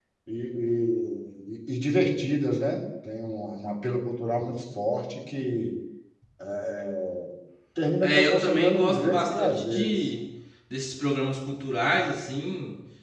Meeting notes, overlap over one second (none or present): present